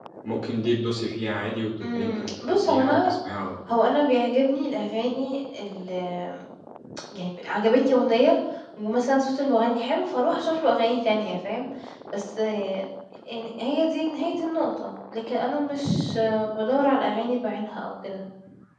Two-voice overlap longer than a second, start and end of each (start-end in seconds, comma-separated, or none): 1.8-3.1